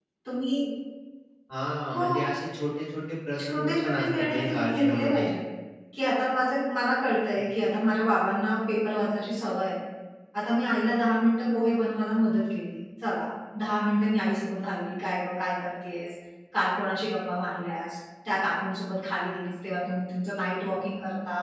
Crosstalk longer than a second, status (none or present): present